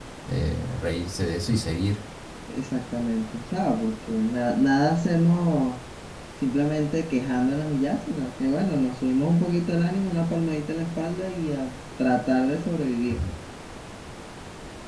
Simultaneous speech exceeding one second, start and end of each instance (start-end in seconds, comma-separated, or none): none